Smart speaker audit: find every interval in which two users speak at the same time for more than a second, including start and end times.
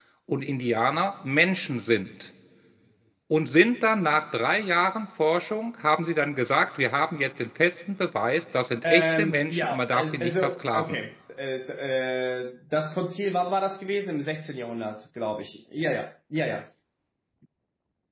8.8-10.8

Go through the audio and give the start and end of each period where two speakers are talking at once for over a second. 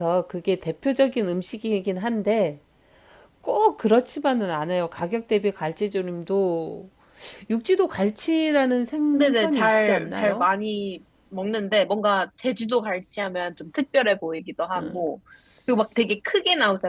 9.1-10.4

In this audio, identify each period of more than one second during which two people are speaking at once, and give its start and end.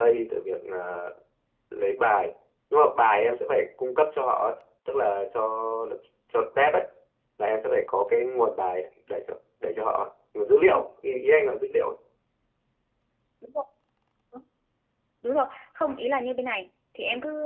none

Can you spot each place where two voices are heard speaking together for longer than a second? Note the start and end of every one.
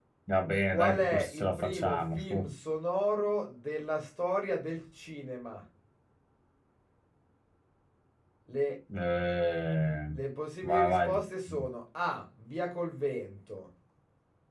0.7-2.5

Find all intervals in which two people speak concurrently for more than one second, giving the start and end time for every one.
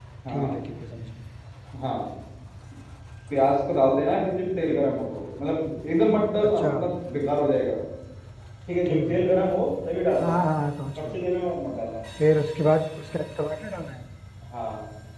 none

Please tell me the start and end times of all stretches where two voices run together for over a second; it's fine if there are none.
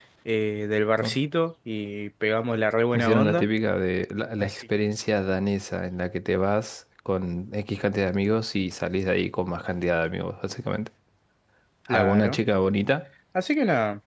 none

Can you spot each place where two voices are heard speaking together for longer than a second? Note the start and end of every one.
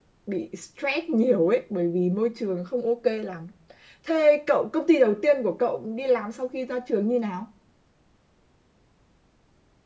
none

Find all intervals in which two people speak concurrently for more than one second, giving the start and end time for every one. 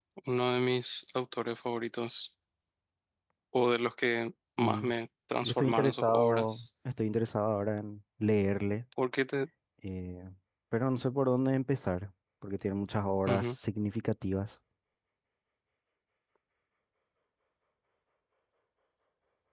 5.4-6.7

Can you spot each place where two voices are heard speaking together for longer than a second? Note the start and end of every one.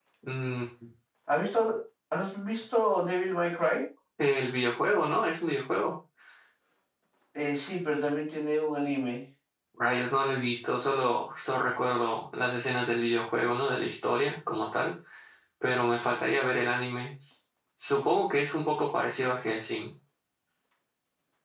none

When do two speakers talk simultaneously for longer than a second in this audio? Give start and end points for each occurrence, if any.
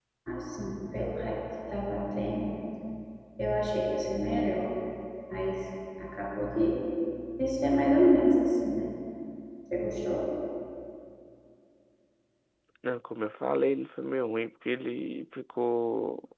none

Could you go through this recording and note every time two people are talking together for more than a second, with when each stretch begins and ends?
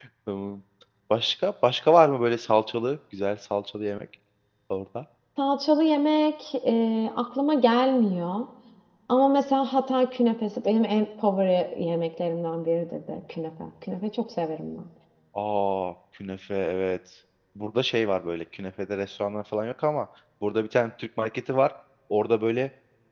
none

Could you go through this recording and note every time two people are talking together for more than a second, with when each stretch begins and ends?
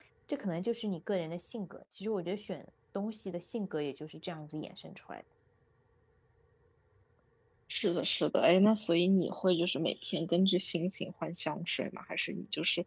none

